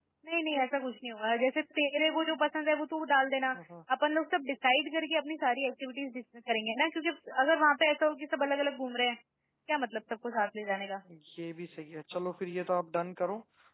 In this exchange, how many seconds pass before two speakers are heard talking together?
none

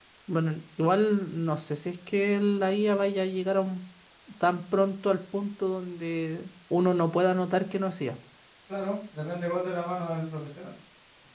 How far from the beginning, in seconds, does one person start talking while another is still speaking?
none

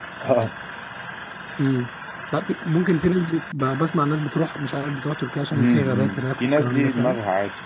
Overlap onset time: 5.5 s

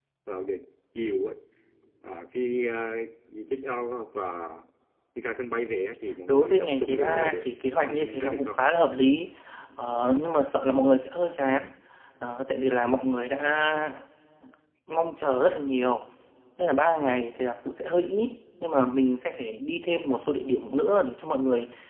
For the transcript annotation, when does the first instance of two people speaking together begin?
6.3 s

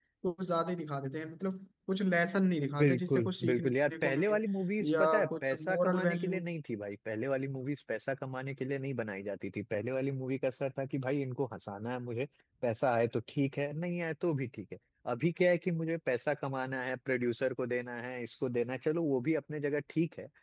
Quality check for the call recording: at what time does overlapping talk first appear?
2.8 s

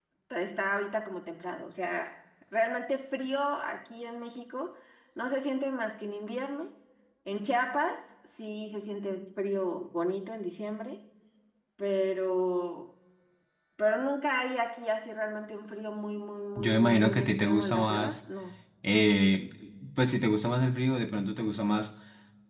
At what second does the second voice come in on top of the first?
16.6 s

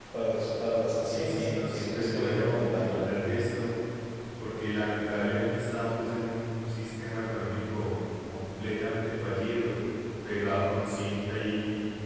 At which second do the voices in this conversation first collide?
1.0 s

